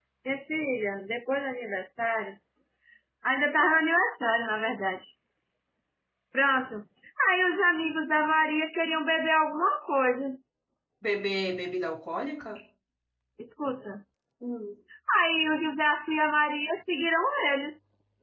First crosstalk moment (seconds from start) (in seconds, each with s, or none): none